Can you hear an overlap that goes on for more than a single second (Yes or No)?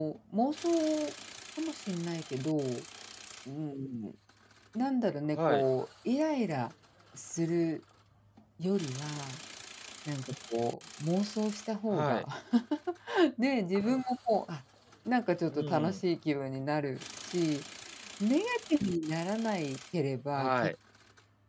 No